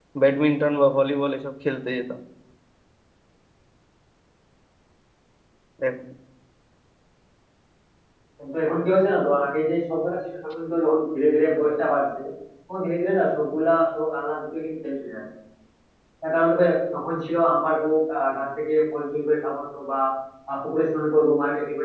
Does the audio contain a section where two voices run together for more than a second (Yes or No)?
No